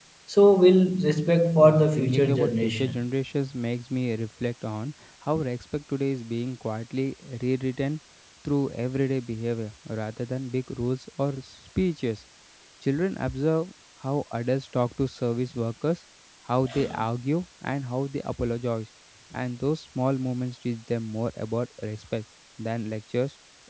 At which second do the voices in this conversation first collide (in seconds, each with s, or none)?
1.6 s